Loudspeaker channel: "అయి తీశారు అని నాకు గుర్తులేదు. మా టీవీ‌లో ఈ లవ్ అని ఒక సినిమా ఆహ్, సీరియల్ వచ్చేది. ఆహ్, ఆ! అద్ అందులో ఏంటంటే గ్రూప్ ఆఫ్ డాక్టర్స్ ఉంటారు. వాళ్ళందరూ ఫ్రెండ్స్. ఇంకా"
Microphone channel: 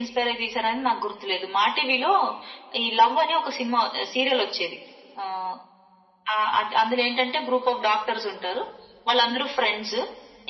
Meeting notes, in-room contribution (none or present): none